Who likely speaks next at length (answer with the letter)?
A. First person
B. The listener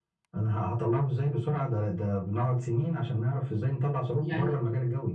B